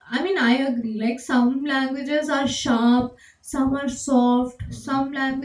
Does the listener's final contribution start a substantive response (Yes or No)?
No